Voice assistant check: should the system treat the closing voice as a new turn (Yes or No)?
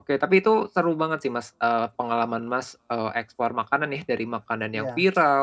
No